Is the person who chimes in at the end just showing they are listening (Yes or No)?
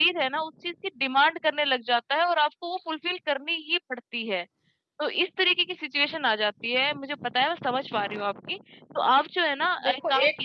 No